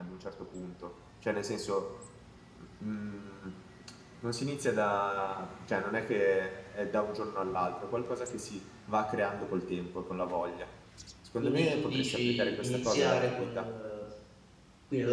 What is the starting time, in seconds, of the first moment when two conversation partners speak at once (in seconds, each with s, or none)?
11.4 s